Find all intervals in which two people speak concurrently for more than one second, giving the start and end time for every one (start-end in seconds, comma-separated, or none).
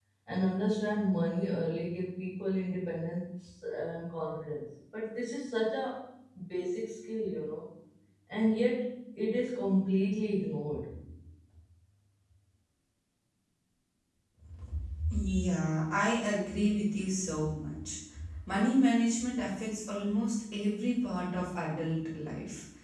none